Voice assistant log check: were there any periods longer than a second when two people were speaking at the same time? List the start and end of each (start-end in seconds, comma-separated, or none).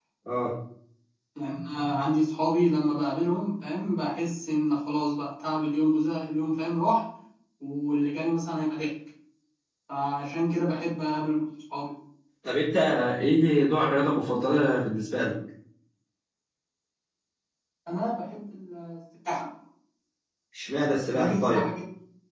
none